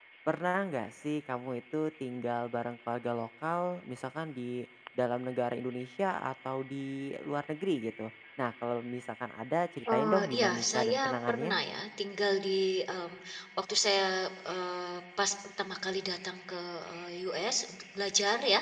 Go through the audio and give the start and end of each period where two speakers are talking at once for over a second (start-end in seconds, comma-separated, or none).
9.9-11.5